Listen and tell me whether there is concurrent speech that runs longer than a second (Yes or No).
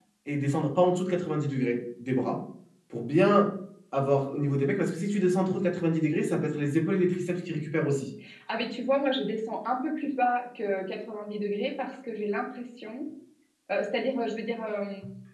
No